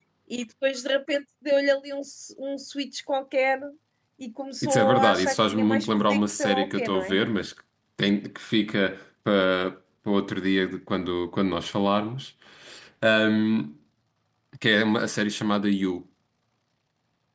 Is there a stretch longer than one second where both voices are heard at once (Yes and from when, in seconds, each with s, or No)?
Yes, from 4.6 s